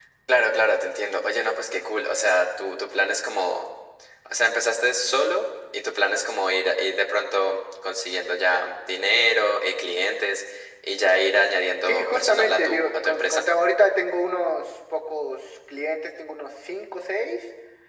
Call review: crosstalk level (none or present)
present